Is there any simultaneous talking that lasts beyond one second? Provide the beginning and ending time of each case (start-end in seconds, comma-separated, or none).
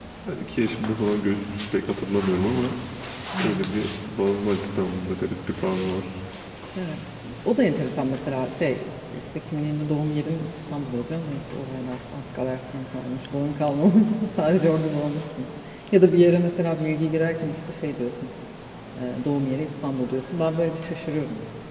none